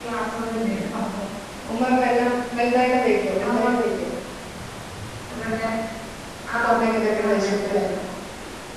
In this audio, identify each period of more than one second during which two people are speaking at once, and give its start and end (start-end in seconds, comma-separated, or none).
6.5-7.8